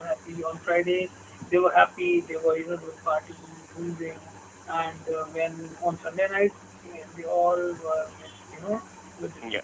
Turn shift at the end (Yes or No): No